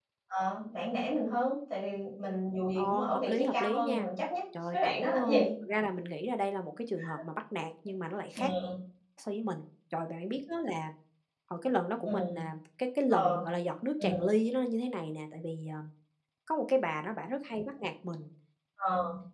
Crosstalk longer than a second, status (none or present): present